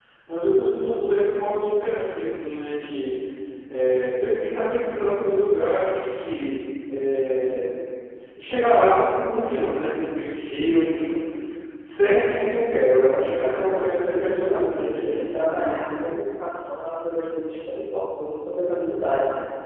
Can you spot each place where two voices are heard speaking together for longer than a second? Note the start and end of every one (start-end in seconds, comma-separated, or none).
12.9-15.4